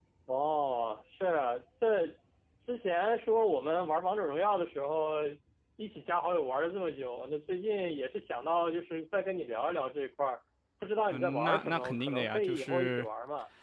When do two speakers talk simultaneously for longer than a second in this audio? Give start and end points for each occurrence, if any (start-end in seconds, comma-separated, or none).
11.1-13.1